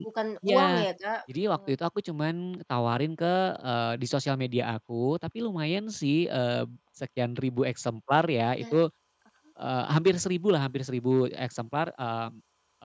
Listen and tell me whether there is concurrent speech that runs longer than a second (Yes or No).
No